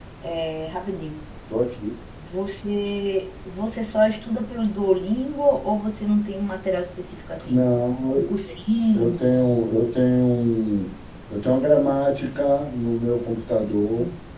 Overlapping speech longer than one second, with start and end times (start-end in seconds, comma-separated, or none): none